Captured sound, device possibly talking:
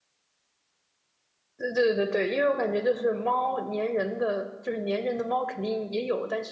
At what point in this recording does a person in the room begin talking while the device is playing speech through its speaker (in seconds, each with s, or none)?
1.6 s